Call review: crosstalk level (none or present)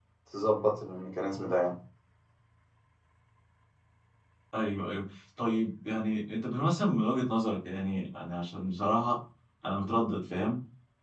none